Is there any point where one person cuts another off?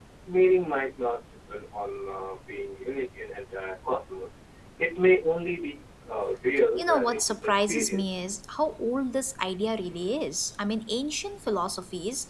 Yes, from 6.8 s

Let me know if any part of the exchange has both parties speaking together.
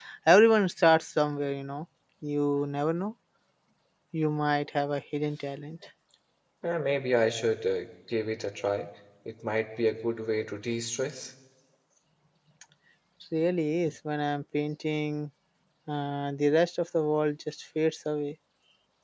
No

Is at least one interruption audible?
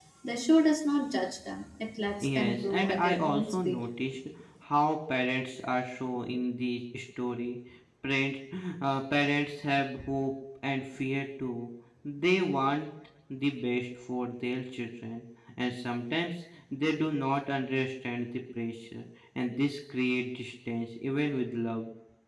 Yes, from 2.1 s

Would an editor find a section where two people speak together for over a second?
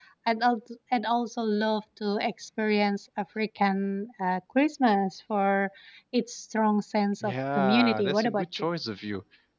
Yes, from 7.2 s

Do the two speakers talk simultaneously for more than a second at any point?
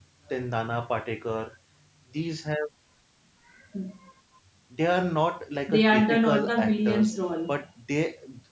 Yes, from 5.7 s

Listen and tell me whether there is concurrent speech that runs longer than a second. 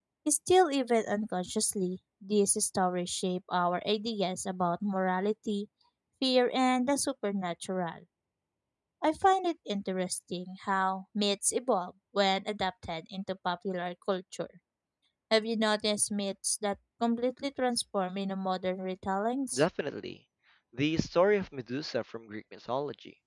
No

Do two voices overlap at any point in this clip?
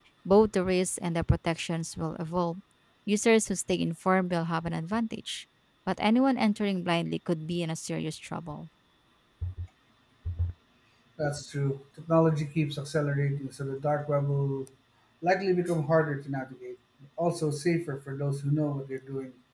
No

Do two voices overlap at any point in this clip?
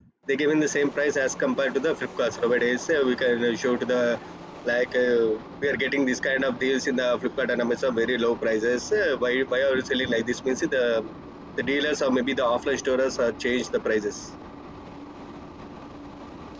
No

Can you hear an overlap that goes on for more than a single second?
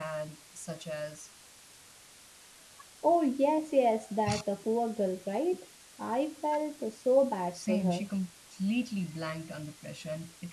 No

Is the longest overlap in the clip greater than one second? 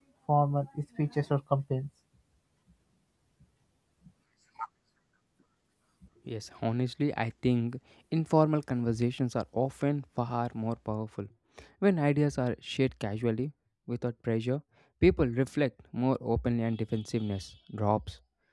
No

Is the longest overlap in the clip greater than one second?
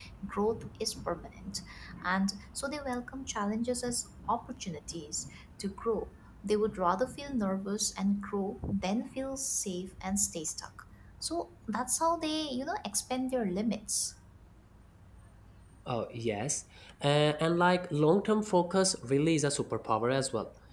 No

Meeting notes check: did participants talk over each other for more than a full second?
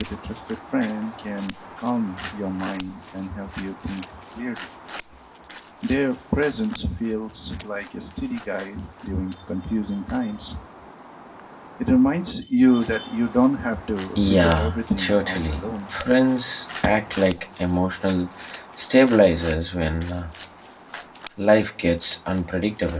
Yes, from 14.2 s

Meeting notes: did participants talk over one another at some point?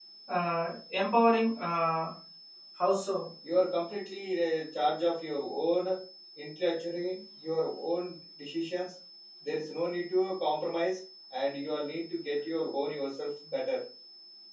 No

